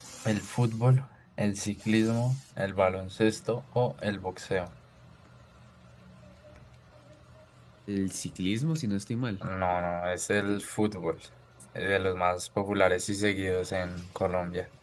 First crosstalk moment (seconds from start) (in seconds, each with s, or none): none